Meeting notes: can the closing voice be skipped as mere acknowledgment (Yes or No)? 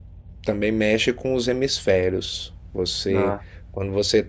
Yes